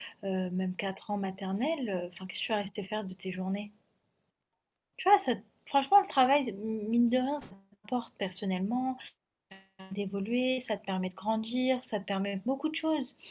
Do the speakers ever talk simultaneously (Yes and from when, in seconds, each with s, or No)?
No